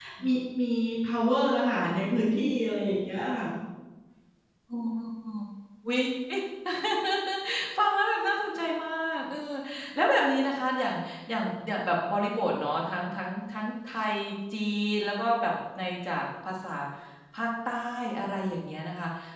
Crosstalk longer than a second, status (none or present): none